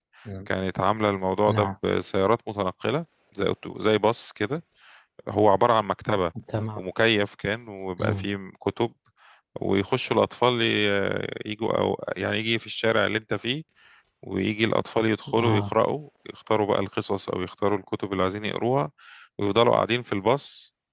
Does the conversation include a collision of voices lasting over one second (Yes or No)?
No